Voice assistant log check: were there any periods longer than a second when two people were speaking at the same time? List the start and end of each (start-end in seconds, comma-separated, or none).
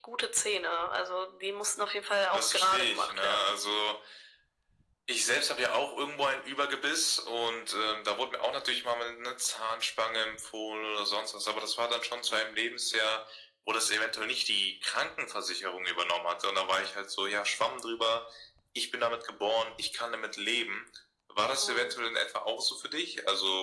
2.3-3.6